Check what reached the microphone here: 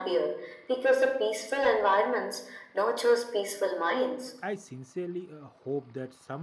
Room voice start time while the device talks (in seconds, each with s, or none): 4.2 s